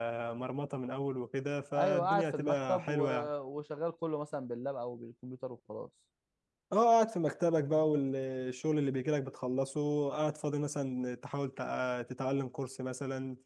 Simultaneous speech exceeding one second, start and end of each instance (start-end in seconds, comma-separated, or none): 1.7-3.1